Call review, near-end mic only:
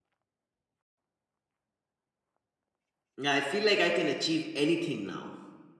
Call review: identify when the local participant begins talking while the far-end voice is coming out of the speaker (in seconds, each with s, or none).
3.2 s